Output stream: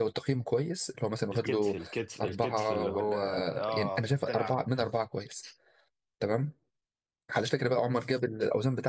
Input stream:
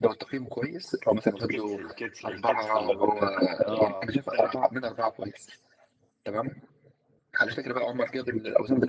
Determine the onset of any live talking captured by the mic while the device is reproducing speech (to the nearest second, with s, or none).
none